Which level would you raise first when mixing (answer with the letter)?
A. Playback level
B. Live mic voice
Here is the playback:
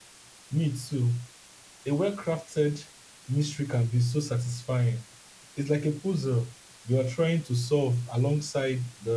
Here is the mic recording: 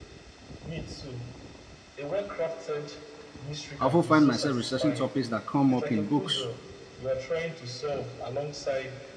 A